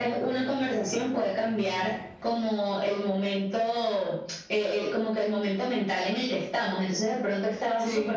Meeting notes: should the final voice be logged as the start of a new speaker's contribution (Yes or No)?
No